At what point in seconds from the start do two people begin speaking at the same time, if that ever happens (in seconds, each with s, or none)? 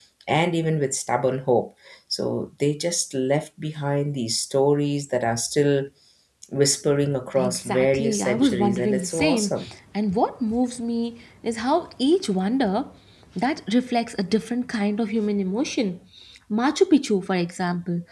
7.4 s